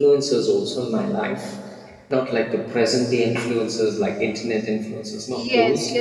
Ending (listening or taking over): taking over